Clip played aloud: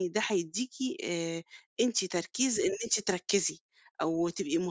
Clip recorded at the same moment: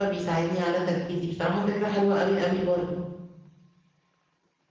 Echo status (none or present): none